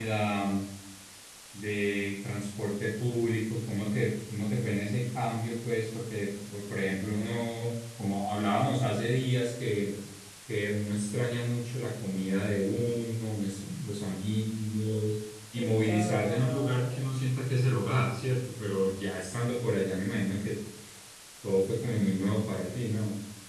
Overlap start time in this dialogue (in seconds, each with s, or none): 15.6 s